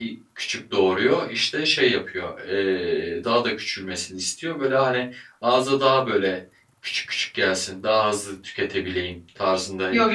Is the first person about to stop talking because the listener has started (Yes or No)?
Yes